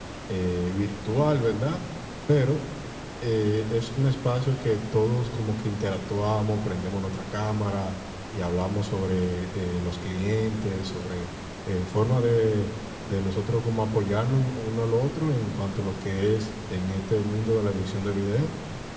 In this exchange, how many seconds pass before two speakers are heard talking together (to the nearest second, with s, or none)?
none